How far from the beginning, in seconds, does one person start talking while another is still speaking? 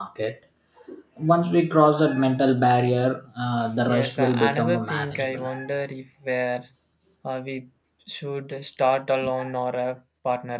4 s

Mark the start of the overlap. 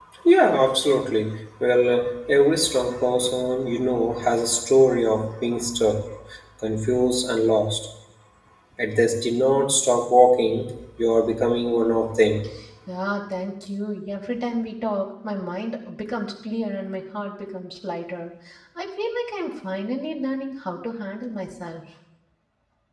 none

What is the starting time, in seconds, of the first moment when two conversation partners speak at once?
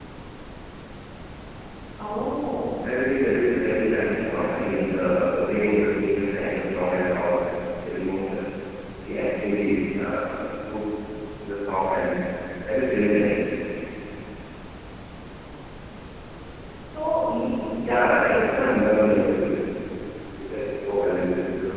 18 s

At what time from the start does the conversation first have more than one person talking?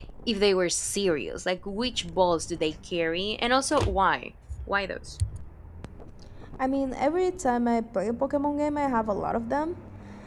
none

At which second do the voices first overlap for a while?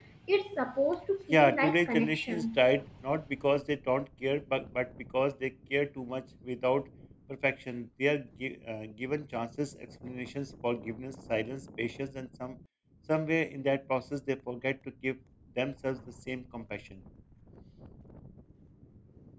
1 s

